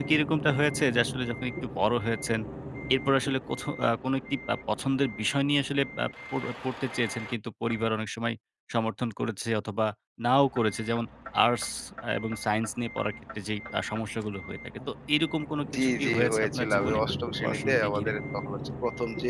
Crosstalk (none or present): present